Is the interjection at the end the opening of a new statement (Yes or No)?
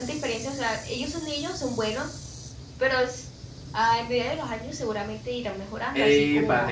Yes